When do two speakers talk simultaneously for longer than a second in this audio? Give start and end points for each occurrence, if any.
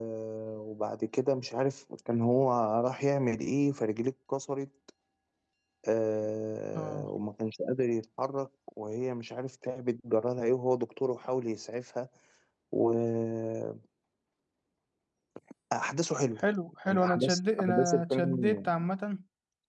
16.9-18.7

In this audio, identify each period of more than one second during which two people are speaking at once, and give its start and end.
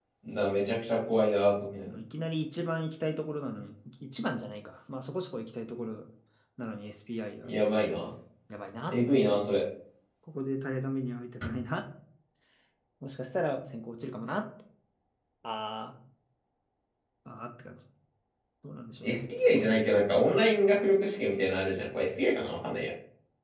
none

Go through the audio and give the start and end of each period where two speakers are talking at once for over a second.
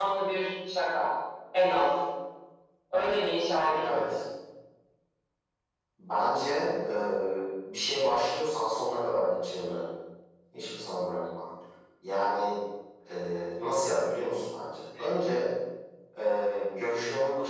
none

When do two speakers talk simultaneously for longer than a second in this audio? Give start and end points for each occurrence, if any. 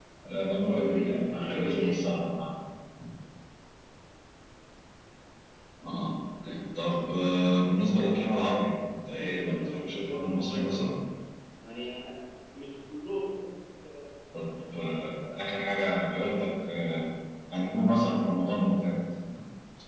0.6-2.1, 9.1-10.9

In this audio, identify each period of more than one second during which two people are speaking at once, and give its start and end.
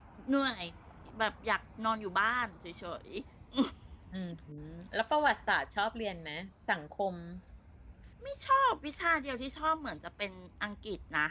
none

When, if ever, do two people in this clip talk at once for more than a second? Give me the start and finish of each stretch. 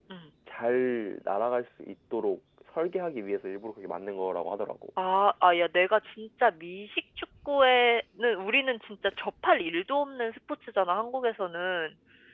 none

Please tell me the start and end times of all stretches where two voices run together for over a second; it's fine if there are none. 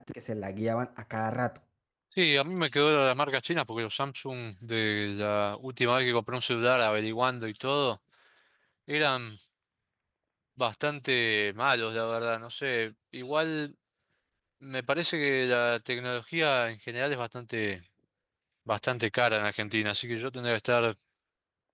none

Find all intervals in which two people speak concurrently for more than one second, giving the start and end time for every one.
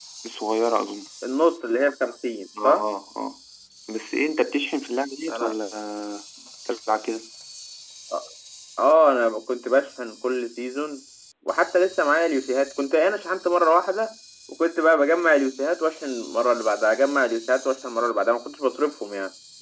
none

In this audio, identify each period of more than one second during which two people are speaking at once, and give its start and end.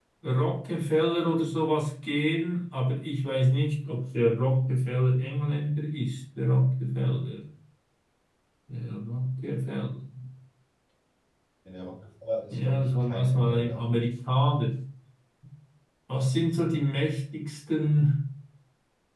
12.5-13.8

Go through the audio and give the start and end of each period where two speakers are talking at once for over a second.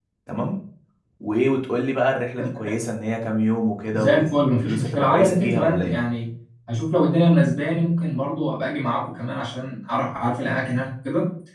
3.9-6.0

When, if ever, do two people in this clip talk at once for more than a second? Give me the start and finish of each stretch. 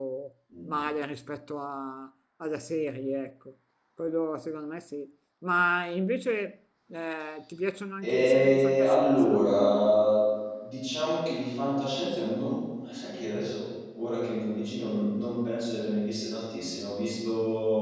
8.0-9.4

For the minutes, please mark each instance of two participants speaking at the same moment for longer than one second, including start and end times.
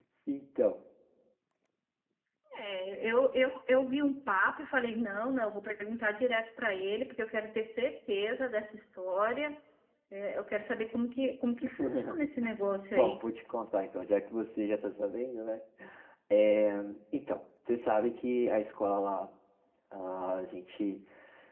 none

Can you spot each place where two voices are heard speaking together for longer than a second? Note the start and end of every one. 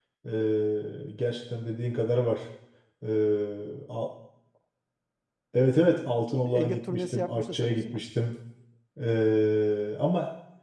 6.5-8.0

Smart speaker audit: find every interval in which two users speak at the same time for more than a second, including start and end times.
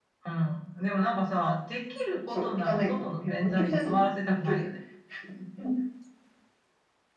2.3-4.7

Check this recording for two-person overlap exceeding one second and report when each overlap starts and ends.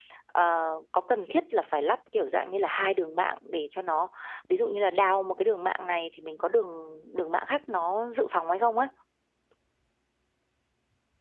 none

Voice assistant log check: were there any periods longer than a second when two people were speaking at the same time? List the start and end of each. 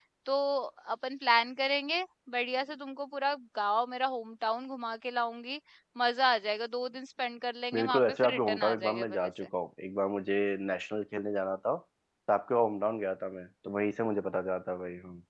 7.7-9.5

